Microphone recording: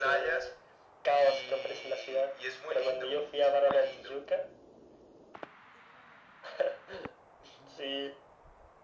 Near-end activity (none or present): none